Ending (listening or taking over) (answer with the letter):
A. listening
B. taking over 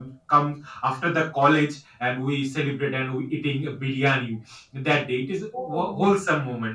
A